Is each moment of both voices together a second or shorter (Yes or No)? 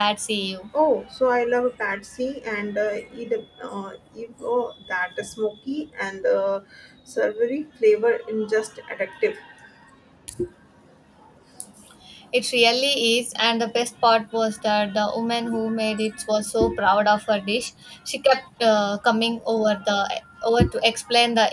Yes